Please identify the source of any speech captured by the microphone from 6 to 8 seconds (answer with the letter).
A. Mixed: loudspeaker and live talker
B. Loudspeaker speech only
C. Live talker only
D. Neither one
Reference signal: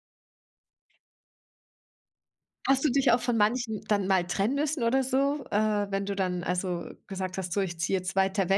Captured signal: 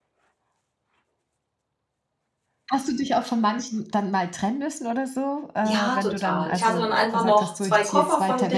A